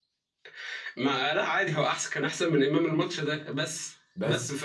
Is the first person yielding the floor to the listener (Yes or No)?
No